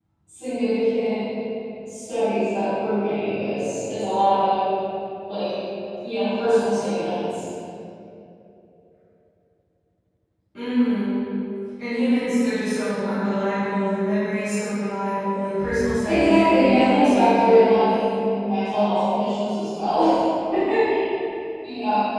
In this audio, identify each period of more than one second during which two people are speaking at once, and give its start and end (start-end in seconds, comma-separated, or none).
16.0-17.9